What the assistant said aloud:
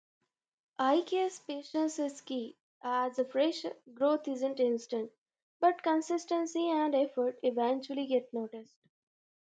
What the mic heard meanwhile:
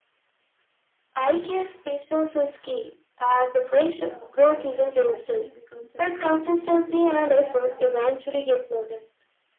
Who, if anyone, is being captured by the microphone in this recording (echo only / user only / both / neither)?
both